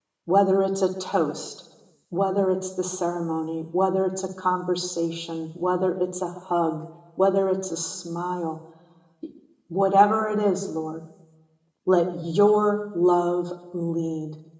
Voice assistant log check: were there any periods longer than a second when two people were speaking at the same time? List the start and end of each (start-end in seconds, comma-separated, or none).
none